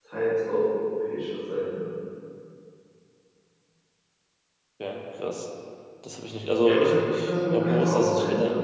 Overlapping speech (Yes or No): Yes